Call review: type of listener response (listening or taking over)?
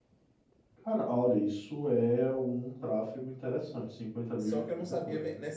taking over